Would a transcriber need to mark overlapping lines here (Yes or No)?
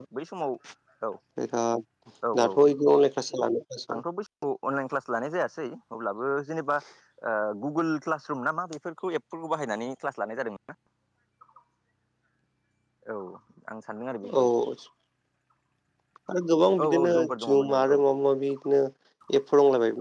Yes